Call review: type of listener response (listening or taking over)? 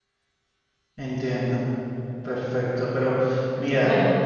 listening